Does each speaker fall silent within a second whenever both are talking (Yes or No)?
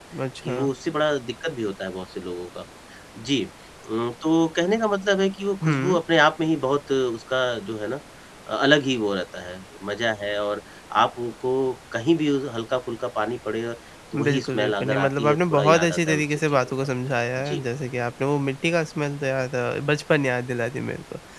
No